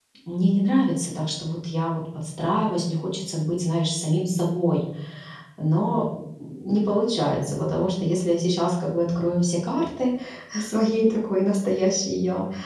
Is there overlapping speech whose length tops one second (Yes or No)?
No